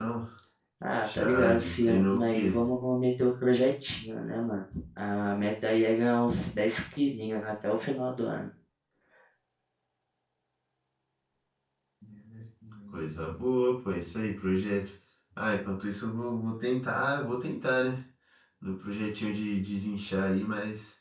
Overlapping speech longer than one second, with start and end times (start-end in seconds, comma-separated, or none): 1.0-2.6